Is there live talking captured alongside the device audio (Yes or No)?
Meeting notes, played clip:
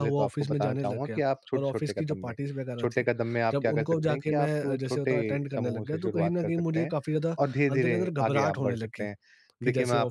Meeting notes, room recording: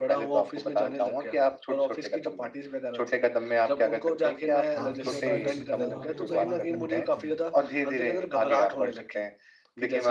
Yes